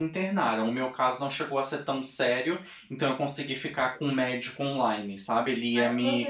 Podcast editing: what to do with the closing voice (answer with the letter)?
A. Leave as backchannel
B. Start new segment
B